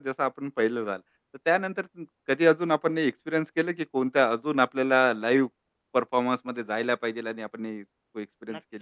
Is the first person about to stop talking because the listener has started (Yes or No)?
Yes